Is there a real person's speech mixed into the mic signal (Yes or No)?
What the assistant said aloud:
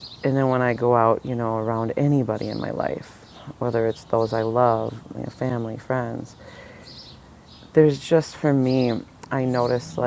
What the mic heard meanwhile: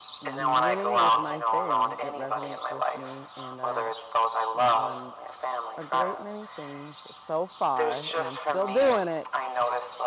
Yes